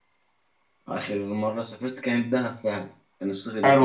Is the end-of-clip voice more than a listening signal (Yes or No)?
Yes